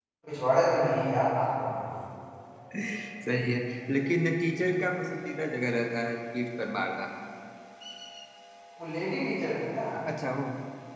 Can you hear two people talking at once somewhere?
No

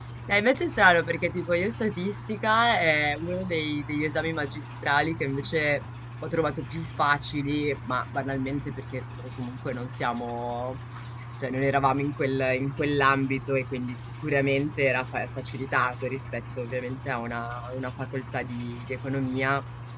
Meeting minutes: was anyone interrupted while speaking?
No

